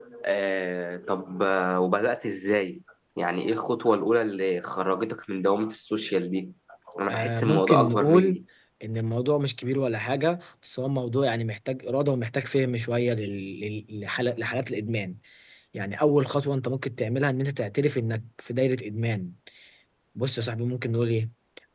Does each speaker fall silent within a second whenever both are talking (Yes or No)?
No